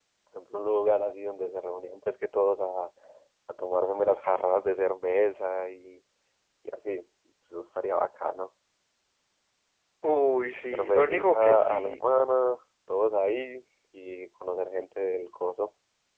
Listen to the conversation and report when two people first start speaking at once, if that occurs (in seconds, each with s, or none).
10.7 s